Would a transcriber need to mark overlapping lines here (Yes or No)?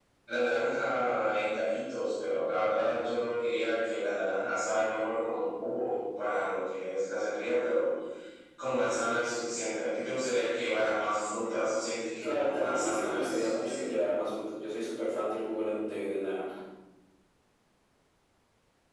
Yes